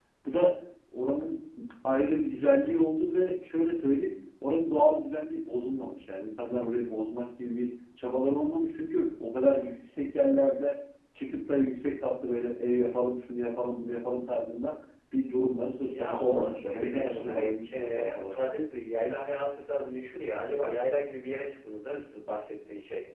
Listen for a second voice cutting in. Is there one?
Yes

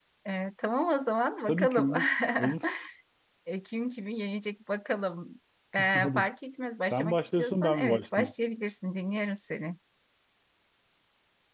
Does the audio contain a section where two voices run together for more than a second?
Yes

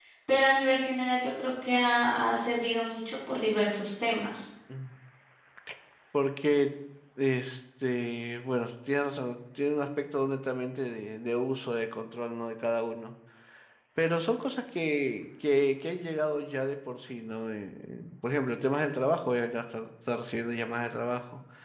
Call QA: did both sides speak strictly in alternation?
Yes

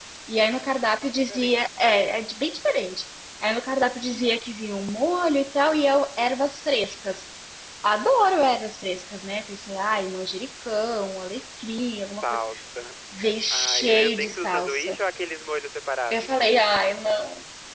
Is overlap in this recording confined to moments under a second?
No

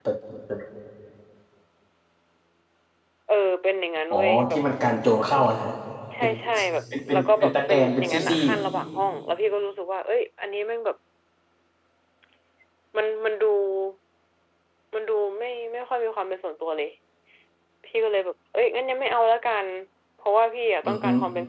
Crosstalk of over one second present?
Yes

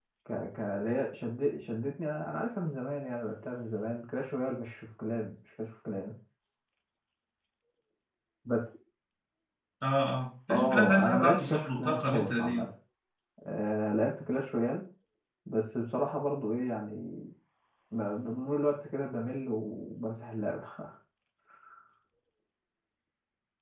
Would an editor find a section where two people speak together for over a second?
Yes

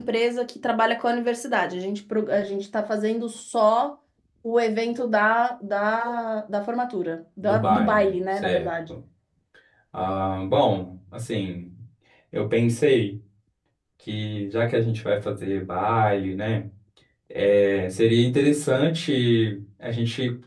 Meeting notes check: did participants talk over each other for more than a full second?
Yes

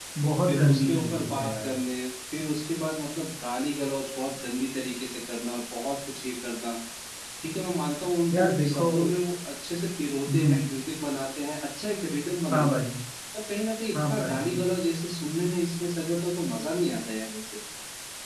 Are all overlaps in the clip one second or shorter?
No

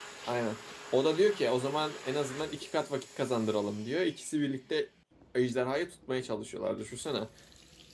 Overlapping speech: No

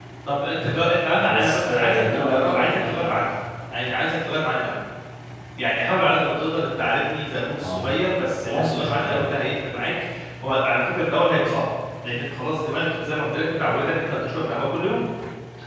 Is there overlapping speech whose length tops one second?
Yes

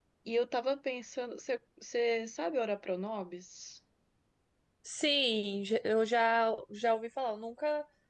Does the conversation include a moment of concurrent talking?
No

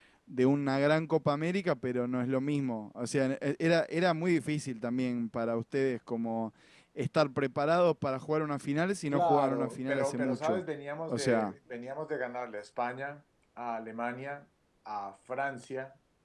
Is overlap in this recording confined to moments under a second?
No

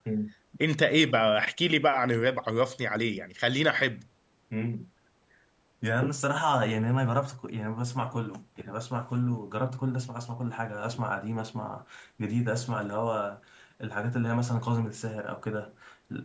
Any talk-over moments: No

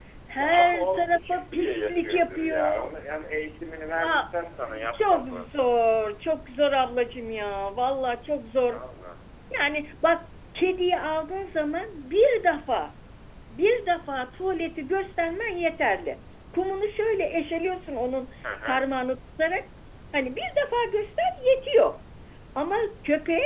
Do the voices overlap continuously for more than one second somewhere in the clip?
Yes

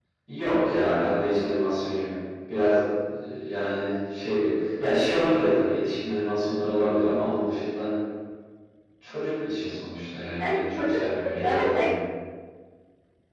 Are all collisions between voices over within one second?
No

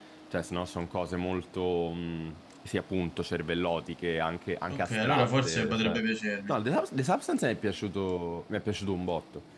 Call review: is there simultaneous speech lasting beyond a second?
Yes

